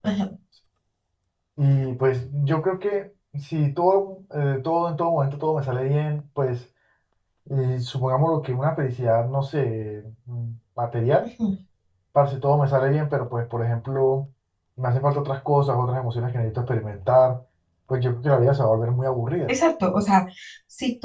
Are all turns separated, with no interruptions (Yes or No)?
Yes